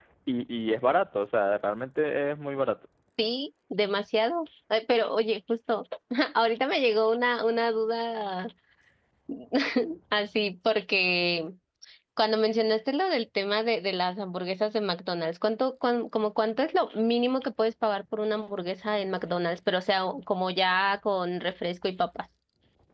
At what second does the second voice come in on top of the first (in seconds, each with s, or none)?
none